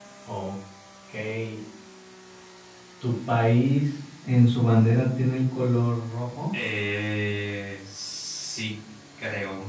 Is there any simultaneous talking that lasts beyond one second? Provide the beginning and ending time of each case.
none

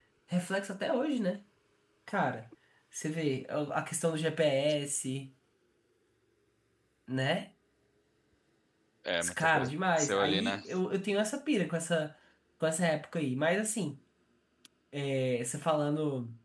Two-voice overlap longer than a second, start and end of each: 9.4-10.6

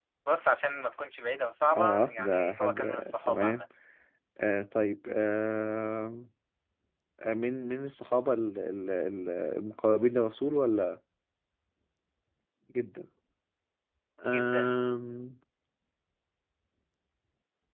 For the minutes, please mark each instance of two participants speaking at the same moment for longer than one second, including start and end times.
1.8-3.6

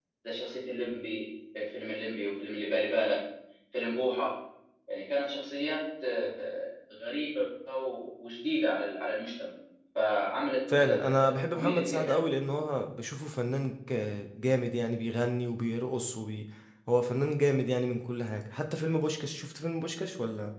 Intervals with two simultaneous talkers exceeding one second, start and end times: 10.8-12.3

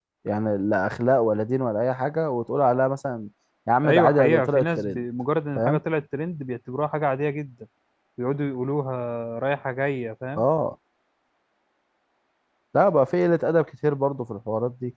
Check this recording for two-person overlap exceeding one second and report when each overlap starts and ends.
3.8-5.0

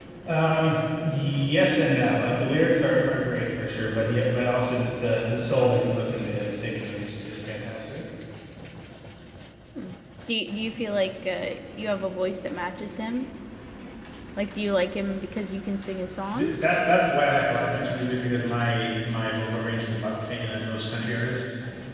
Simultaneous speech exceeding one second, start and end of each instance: none

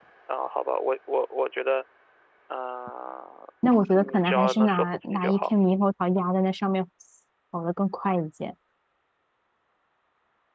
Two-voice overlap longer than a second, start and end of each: 4.0-5.5

